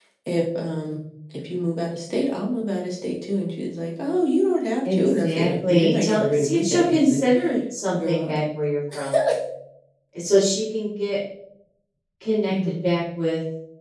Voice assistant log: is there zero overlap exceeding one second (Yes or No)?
No